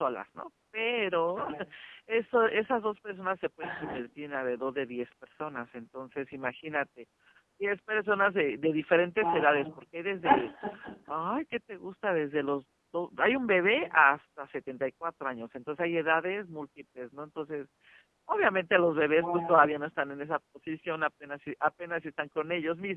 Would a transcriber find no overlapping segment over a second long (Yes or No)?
Yes